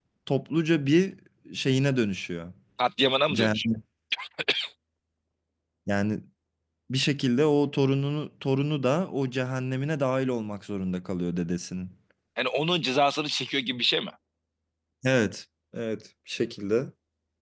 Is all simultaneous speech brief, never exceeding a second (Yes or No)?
Yes